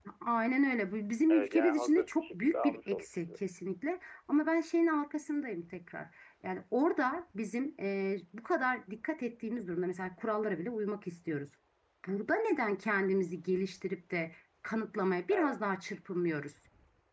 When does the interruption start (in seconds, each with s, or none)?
1.3 s